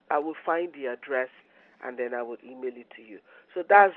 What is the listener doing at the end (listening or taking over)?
listening